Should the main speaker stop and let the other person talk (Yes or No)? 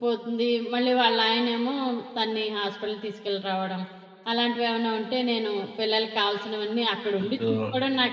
No